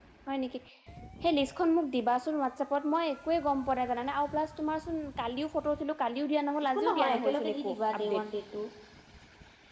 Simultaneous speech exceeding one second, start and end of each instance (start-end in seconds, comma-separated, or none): 6.7-8.2